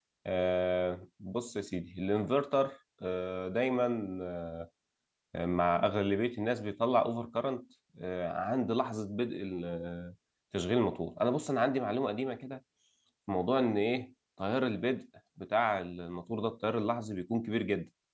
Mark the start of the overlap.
none

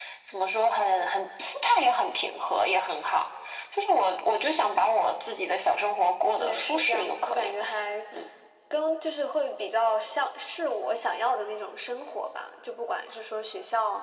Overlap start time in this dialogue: 6.4 s

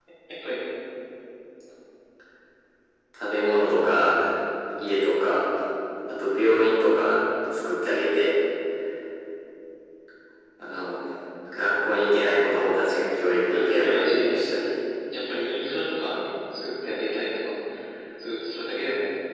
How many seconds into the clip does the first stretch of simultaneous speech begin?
13.4 s

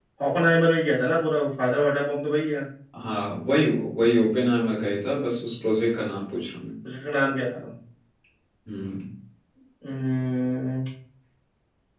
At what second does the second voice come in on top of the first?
none

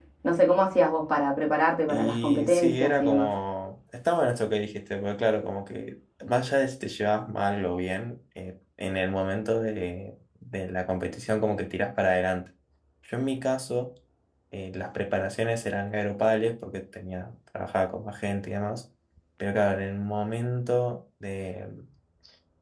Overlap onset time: 1.9 s

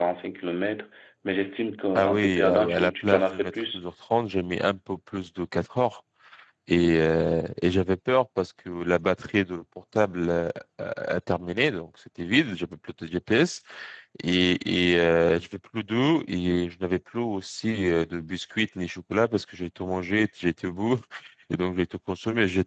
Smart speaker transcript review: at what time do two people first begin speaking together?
1.9 s

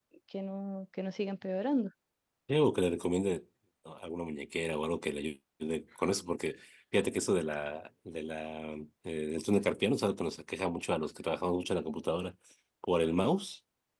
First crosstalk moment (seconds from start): none

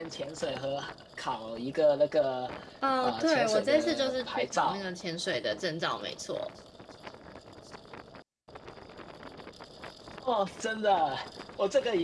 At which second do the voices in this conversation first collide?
3.0 s

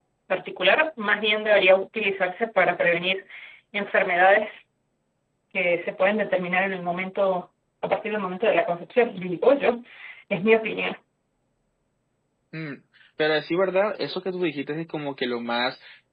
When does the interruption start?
none

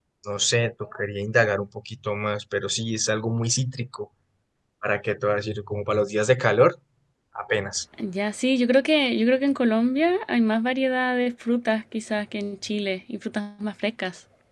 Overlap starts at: none

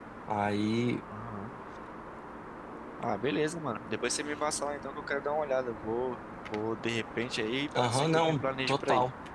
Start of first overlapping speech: 7.7 s

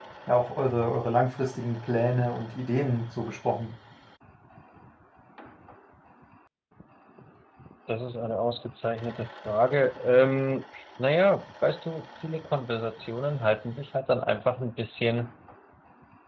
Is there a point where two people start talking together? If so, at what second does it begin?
none

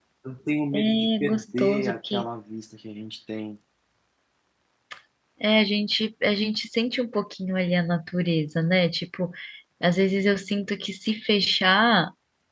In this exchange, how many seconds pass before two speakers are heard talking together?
0.7 s

